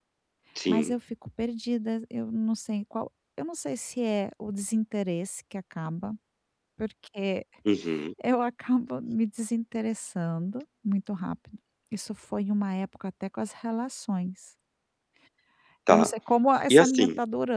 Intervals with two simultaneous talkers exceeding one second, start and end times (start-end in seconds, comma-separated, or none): none